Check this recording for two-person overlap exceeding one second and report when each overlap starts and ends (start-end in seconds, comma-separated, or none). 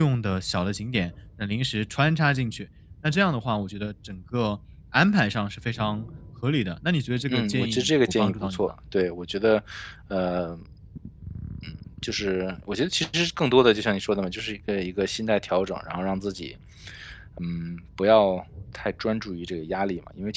7.3-8.7